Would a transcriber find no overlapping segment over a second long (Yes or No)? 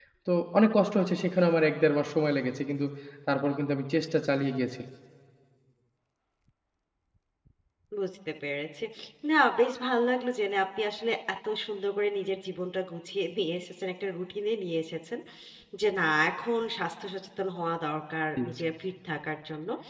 Yes